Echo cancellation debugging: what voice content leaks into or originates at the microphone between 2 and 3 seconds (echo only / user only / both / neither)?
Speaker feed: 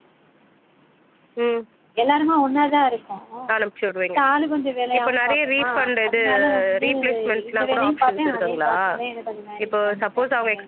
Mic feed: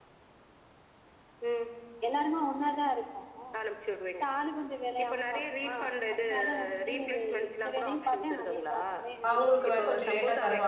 echo only